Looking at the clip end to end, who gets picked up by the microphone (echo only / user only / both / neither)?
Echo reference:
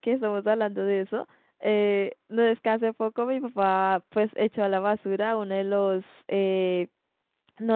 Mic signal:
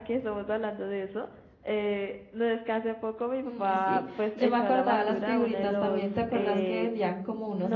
both